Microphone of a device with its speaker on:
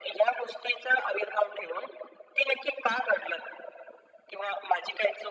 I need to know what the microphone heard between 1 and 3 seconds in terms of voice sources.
echo only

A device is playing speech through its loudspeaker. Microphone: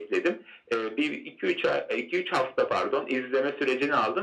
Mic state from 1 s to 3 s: echo only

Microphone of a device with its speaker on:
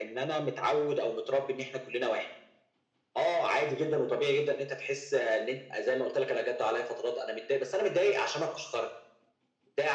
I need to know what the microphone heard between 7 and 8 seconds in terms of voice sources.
echo only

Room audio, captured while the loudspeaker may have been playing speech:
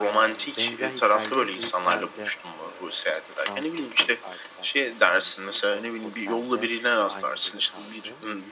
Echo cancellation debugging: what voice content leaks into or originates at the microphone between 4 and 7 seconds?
both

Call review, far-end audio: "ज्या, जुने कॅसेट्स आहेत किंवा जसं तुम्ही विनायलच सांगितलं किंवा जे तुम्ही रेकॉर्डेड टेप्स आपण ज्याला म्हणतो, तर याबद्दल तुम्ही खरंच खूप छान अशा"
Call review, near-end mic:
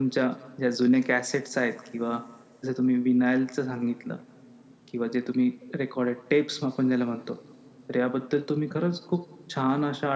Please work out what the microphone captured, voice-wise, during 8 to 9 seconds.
echo only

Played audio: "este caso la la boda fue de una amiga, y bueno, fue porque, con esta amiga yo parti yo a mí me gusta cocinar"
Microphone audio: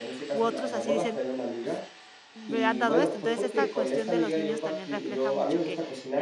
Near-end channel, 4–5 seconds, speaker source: both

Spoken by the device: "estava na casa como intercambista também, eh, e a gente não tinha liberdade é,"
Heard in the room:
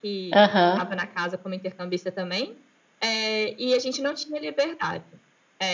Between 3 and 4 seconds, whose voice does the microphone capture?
echo only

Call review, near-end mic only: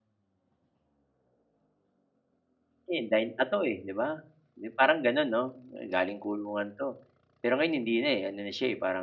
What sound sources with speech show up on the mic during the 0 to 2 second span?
neither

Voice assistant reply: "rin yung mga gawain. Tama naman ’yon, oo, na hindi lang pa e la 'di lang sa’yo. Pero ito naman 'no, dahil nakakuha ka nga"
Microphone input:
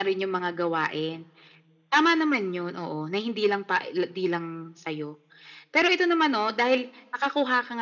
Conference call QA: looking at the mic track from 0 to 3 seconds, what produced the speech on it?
echo only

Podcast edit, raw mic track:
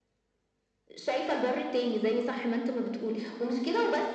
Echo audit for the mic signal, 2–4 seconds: echo only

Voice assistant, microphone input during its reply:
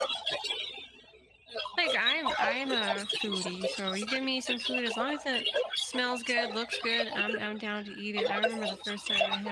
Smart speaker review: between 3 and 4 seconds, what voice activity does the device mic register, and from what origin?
both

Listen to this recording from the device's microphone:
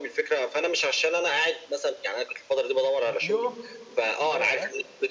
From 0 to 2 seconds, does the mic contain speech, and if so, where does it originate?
echo only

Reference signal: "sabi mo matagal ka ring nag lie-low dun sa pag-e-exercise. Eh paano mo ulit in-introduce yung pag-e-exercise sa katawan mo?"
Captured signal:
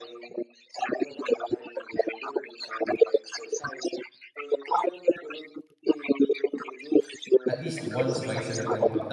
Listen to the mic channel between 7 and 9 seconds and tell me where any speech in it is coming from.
both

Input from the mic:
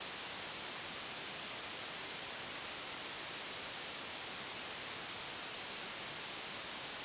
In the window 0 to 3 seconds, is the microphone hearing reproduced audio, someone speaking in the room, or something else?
neither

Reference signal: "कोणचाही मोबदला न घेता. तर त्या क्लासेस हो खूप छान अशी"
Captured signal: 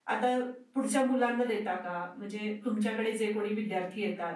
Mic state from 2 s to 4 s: user only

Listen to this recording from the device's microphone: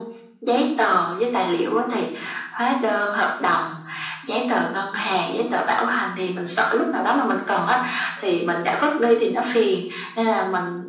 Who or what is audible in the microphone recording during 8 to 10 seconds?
echo only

